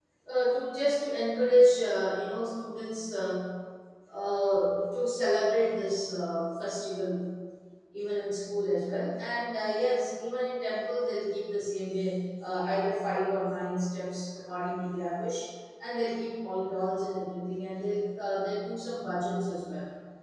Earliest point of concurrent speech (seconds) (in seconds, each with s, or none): none